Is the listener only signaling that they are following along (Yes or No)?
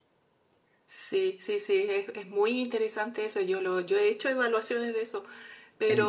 Yes